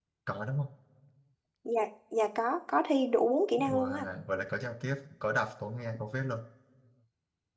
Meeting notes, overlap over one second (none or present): none